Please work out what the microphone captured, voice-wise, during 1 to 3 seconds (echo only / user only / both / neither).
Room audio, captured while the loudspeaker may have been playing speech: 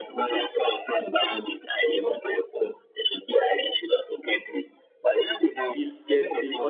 echo only